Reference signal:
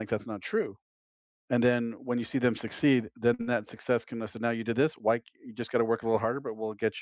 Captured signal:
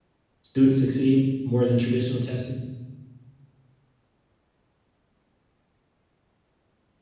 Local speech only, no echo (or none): students succeed more than traditional testing?